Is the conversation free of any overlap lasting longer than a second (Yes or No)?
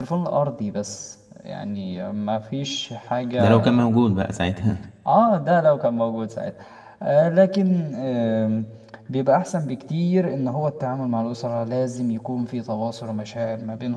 Yes